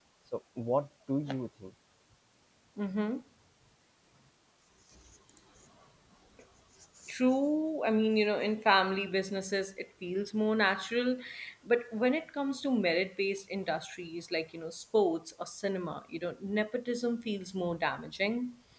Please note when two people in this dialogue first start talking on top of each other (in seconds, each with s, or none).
none